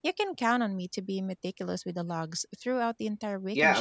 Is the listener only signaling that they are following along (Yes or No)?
No